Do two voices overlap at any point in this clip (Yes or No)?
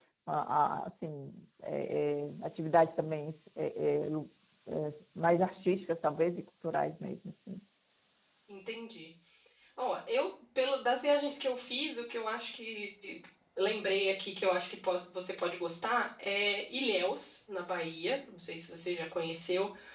No